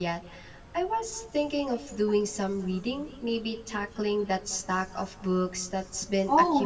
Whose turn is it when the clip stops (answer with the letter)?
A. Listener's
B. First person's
A